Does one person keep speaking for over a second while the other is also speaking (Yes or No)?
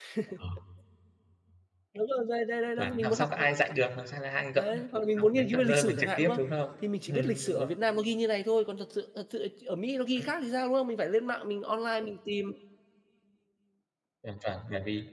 Yes